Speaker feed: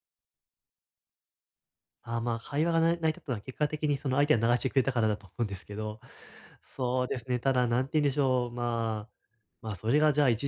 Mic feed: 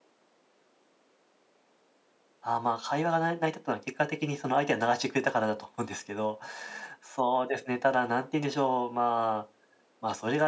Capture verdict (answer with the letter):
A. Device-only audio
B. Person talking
A